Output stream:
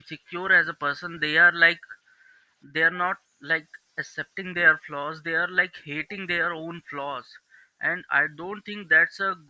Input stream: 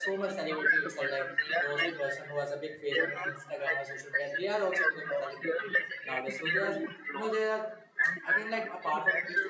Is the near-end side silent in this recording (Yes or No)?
No